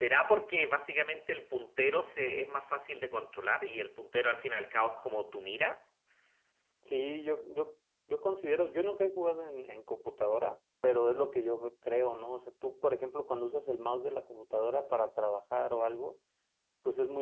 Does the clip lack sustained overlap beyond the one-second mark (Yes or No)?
Yes